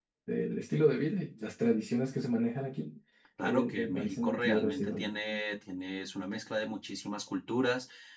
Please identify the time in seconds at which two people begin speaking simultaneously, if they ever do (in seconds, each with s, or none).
3.4 s